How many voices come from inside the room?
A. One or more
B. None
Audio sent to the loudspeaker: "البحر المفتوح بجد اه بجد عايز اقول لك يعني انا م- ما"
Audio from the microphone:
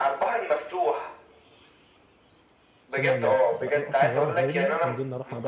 A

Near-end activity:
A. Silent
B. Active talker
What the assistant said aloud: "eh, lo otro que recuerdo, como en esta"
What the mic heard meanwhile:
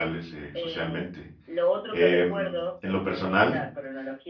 B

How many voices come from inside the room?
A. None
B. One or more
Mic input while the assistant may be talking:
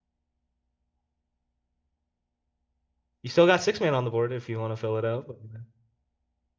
B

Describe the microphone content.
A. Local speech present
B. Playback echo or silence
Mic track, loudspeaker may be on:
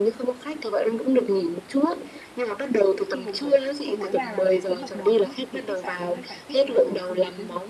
A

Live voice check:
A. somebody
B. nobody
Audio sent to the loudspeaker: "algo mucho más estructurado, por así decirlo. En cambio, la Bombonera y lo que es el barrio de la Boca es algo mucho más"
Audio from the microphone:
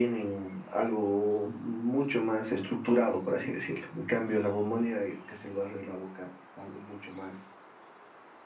B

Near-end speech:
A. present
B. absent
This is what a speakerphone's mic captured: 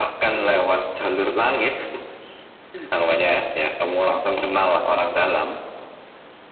B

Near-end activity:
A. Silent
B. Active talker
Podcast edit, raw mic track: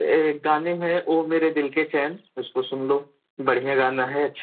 A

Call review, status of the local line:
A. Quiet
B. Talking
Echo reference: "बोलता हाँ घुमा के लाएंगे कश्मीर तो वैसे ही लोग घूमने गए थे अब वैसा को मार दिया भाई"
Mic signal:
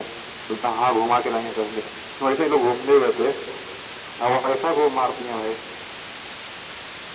A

